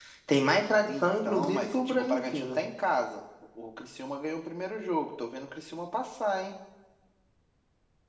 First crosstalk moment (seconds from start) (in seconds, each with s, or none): 0.8 s